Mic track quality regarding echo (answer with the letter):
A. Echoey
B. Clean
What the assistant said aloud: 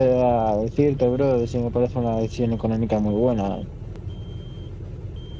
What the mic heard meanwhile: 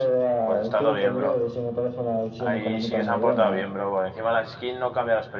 A